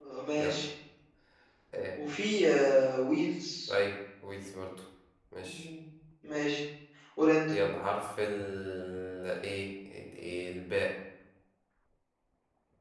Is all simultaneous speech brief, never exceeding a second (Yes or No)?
Yes